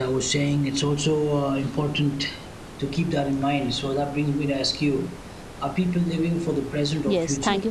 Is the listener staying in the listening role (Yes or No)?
No